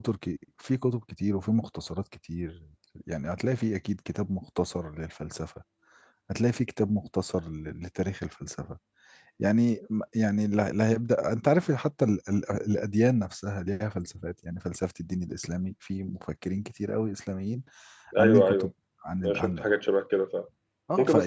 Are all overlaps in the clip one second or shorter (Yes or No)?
Yes